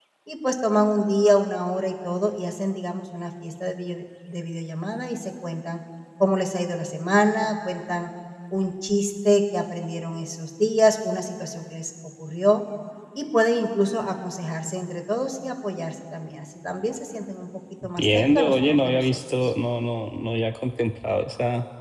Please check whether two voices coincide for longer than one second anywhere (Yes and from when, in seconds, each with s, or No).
Yes, from 18.0 s